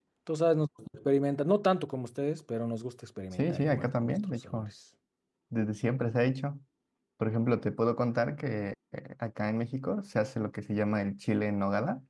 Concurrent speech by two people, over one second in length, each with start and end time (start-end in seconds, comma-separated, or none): 3.4-4.7